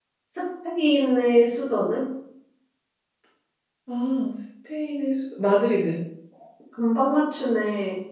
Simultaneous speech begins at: none

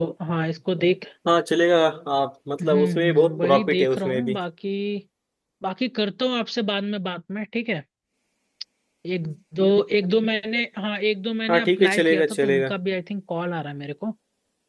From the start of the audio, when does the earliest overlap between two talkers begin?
3 s

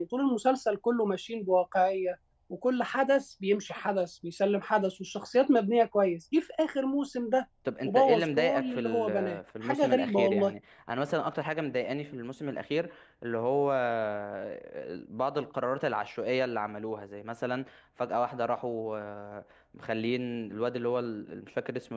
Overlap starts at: 8 s

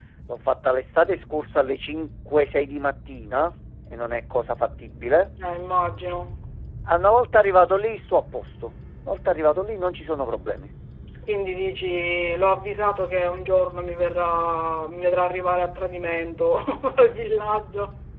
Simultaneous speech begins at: none

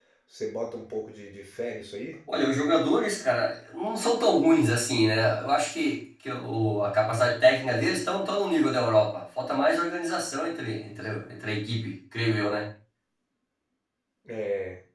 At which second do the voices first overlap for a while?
none

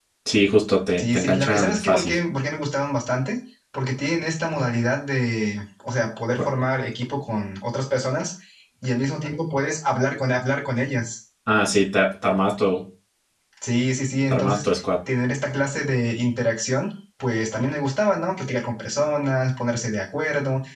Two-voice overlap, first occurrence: 1 s

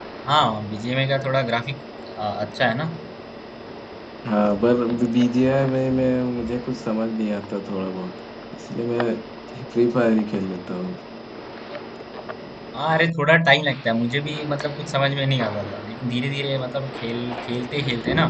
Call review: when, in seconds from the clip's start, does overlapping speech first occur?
none

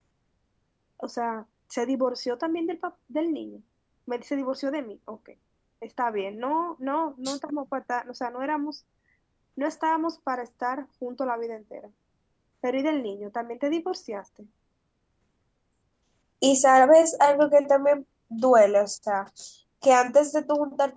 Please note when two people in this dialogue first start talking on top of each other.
none

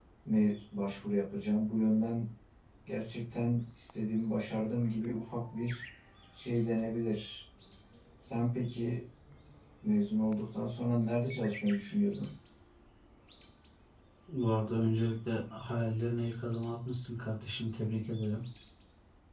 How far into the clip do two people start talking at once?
none

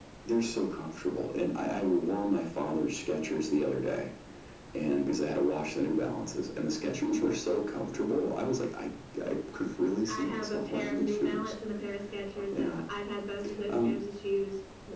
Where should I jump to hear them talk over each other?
10 s

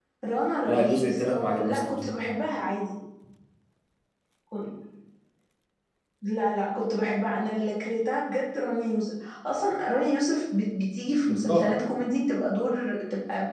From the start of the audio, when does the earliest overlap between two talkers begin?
1 s

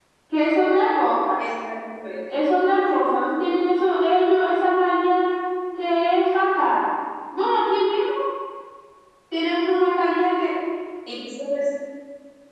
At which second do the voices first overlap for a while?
none

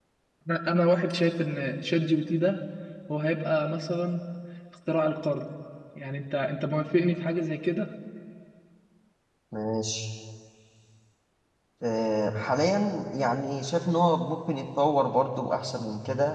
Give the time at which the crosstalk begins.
none

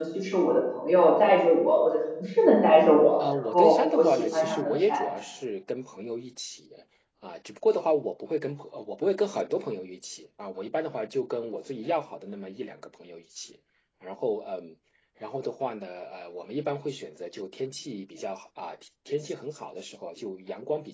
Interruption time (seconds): 3 s

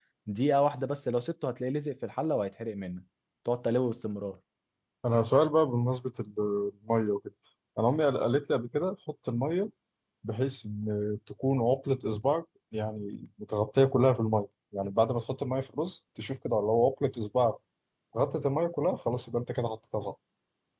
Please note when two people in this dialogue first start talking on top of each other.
none

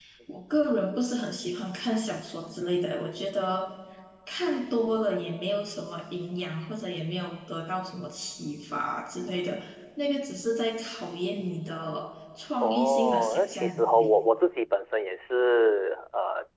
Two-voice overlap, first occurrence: 13 s

